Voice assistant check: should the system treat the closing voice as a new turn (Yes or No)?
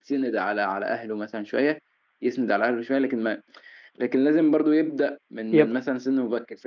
No